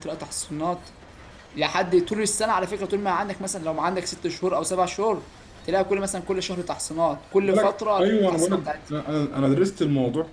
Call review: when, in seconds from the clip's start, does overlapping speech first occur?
7 s

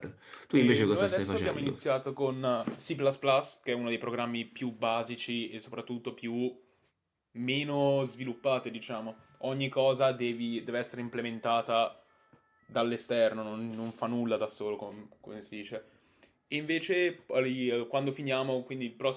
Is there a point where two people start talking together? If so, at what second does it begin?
1 s

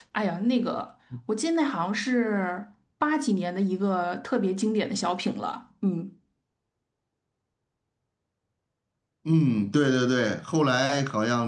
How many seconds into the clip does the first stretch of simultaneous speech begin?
none

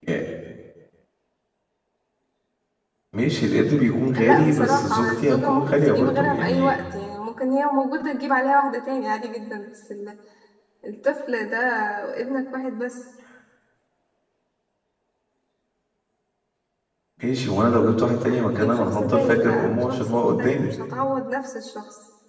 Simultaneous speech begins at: 4 s

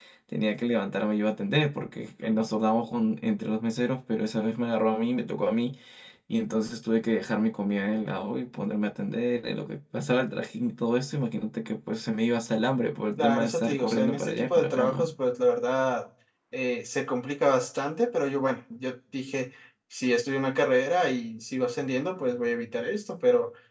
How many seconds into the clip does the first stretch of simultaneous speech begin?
13 s

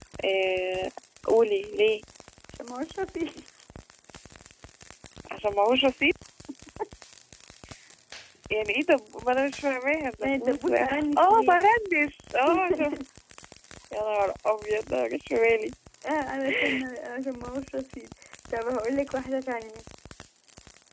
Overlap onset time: 10 s

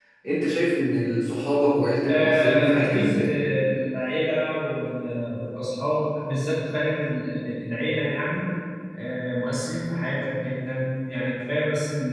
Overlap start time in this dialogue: 2 s

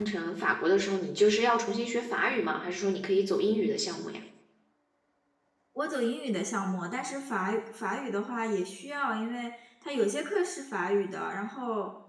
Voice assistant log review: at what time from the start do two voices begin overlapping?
none

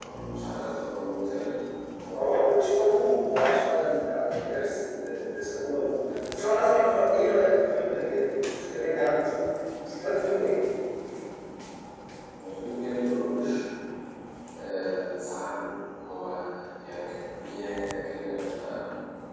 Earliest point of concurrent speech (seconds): none

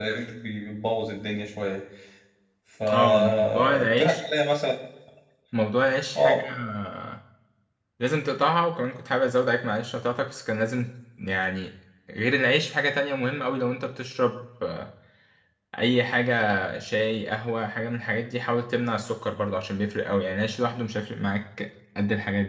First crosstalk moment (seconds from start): 3 s

